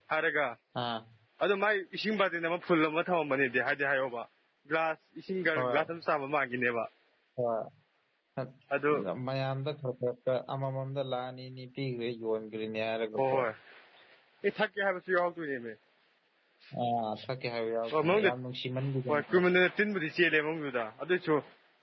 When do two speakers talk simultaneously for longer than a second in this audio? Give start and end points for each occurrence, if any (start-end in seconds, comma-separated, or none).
none